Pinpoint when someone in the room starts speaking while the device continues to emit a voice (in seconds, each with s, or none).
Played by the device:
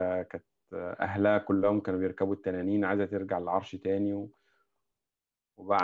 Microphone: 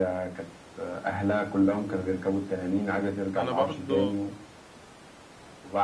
3.4 s